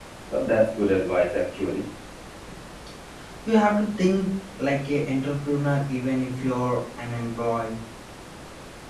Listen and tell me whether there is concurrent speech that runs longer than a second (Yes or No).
No